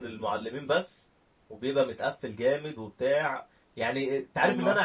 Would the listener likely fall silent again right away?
Yes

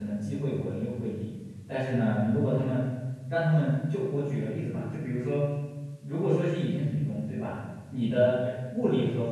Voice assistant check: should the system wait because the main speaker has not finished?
Yes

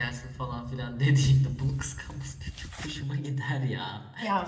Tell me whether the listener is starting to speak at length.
Yes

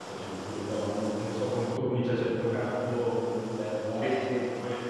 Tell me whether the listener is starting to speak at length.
No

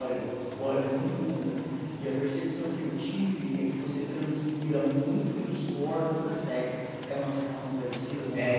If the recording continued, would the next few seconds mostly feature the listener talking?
Yes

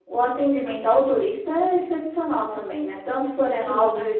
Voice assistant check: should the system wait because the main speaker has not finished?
Yes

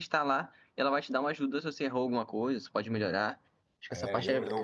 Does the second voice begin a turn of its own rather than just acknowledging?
Yes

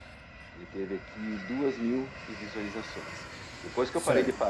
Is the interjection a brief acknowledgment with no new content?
Yes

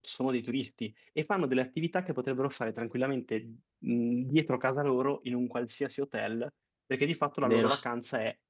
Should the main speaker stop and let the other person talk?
No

